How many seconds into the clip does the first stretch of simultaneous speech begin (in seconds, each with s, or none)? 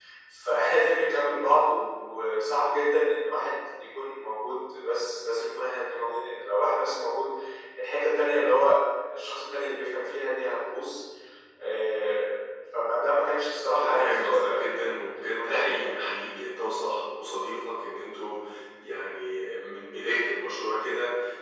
13.8 s